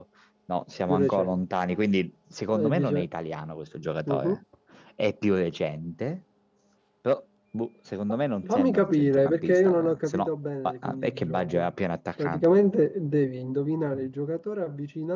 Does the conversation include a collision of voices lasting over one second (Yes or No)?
Yes